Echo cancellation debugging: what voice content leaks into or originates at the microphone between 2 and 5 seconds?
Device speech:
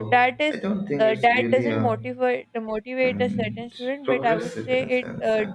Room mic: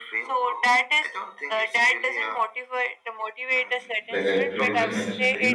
both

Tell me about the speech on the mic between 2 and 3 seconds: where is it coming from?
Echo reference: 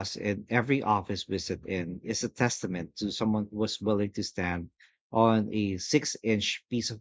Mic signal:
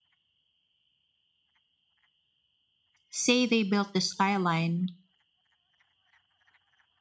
neither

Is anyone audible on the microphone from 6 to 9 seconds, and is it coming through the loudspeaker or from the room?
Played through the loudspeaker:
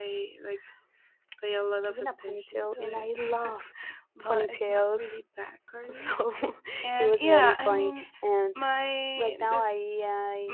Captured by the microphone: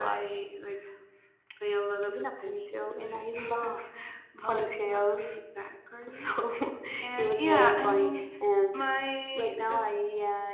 echo only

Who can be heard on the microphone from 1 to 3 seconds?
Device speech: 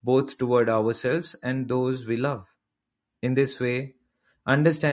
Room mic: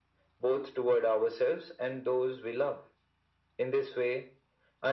echo only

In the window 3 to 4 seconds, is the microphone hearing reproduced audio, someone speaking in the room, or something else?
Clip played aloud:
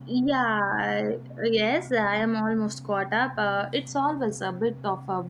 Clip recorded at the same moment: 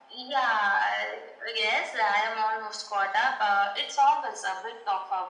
echo only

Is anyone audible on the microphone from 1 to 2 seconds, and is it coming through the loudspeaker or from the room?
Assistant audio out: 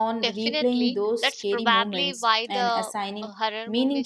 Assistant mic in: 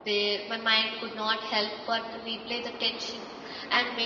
user only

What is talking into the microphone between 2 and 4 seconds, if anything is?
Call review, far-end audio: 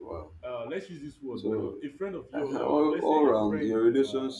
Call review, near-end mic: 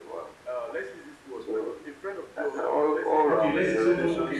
both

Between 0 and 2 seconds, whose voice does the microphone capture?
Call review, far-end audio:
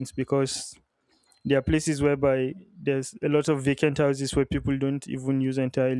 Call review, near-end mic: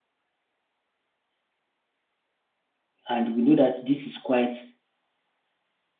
neither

